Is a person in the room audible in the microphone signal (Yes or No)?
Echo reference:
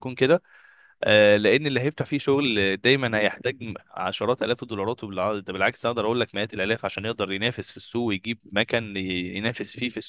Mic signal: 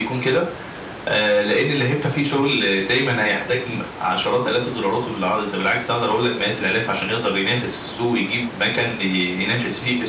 No